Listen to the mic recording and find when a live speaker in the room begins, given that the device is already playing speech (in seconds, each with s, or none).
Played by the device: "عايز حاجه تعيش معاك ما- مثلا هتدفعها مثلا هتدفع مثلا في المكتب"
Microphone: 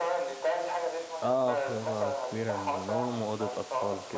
1.2 s